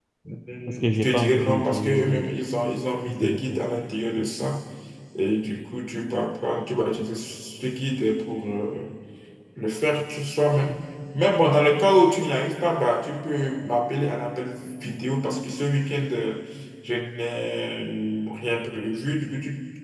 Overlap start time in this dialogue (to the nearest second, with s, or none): 1 s